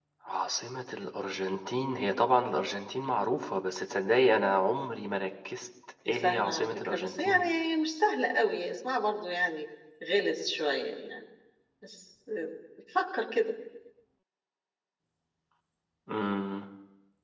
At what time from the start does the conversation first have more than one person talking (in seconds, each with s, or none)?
6.0 s